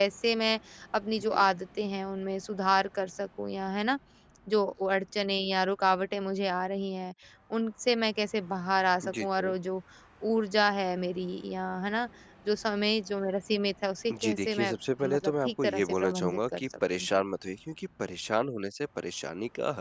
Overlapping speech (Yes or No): Yes